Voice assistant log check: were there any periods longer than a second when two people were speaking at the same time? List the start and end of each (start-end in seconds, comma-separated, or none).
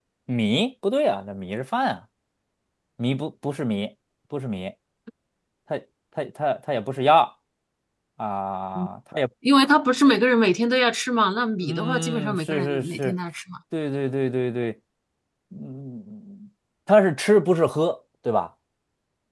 11.6-13.1